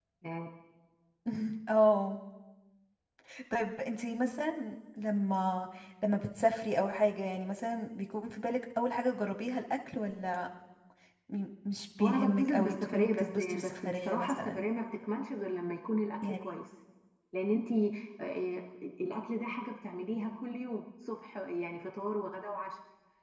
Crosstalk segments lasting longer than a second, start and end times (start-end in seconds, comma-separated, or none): 12.0-14.7